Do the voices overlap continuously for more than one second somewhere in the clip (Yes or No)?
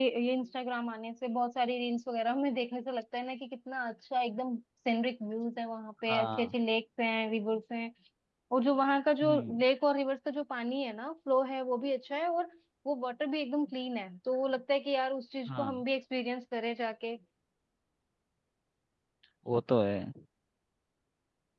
No